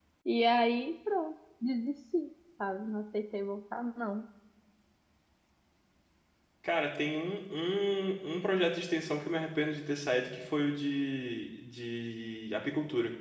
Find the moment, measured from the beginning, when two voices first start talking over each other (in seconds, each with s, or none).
none